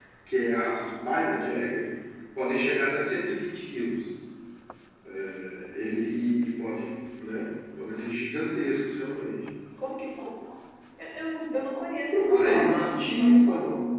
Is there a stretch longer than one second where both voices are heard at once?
Yes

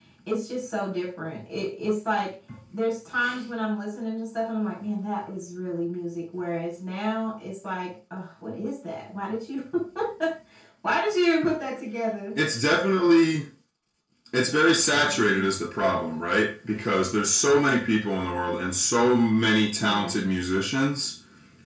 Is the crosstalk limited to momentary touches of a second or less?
Yes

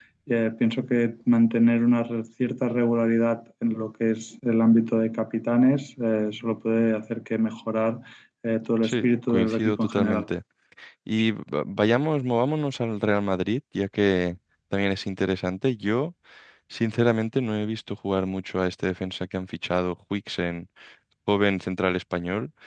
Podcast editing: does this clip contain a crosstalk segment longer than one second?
Yes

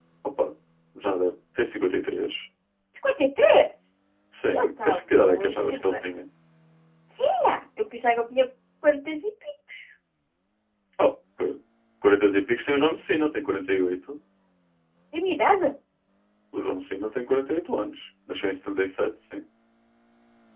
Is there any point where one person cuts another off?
Yes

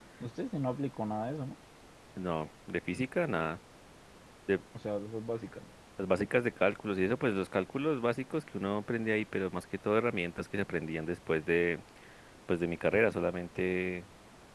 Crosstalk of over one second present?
No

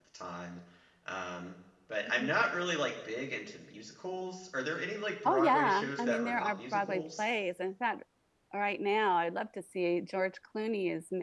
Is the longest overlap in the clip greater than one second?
Yes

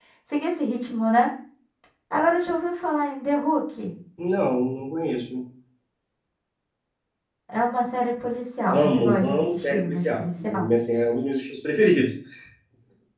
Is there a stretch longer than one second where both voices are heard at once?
Yes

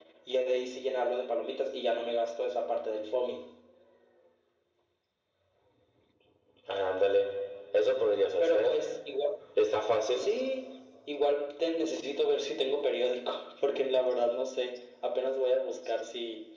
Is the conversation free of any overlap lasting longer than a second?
Yes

